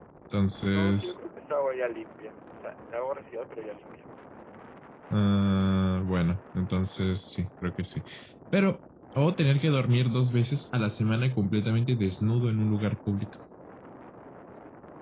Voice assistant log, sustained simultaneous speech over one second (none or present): none